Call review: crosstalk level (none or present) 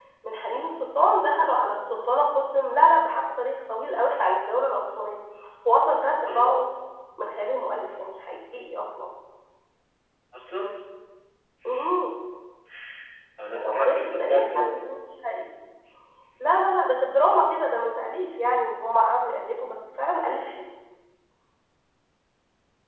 present